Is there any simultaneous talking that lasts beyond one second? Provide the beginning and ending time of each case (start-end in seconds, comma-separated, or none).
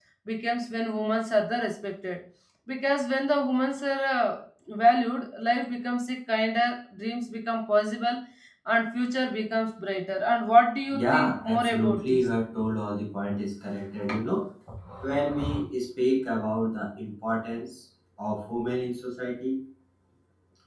10.9-12.3